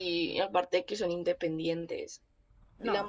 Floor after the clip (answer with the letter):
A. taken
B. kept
B